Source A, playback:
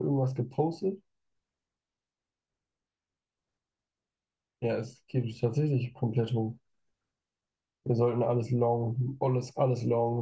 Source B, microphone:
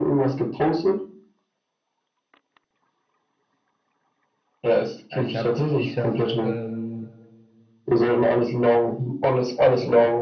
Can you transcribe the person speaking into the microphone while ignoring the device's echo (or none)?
Ja, ich habe, ich habe, ähm,